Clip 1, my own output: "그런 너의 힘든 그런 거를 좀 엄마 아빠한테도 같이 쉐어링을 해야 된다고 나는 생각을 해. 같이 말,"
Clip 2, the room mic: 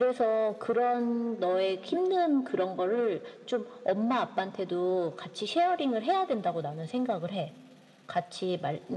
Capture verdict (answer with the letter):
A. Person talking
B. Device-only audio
B